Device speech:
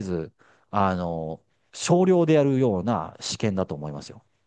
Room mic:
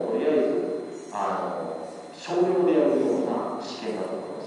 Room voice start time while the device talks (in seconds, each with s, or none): none